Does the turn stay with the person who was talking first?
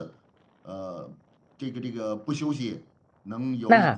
No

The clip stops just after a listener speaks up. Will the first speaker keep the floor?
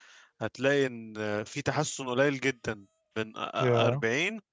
Yes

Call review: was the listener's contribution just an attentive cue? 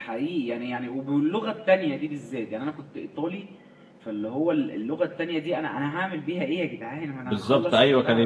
No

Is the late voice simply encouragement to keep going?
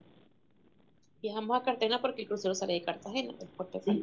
No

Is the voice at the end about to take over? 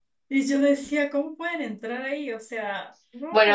Yes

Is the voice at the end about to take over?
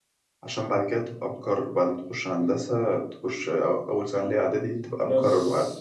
Yes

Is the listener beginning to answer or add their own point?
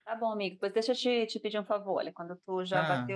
No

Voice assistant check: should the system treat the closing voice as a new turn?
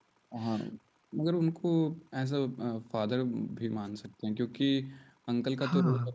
No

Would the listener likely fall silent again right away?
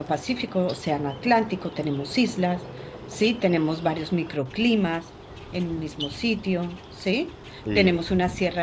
Yes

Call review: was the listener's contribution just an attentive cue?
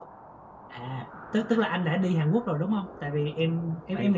Yes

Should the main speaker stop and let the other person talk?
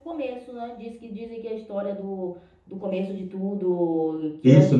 Yes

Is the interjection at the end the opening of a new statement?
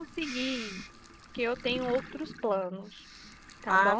Yes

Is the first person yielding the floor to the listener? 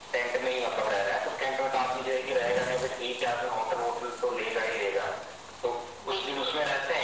No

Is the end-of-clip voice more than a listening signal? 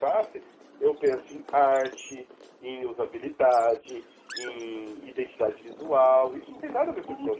Yes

